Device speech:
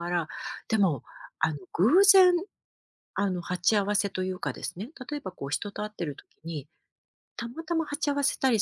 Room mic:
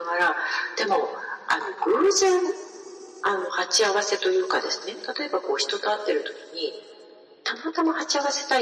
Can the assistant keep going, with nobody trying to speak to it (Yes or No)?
Yes